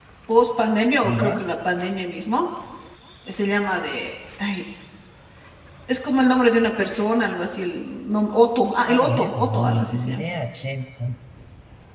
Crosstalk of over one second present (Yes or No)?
Yes